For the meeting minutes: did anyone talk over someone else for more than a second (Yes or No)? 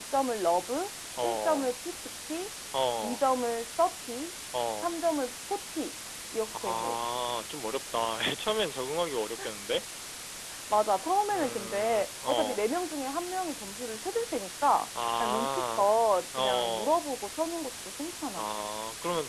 Yes